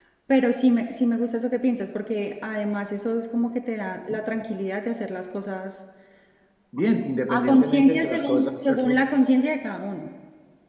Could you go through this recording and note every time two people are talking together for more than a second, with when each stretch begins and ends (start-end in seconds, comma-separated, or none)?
7.3-9.0